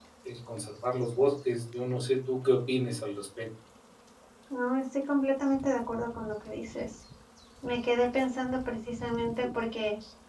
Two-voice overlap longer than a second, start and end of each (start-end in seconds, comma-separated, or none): none